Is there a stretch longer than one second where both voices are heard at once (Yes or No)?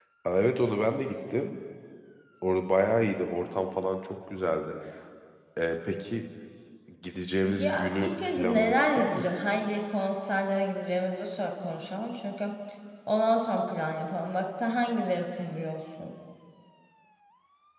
Yes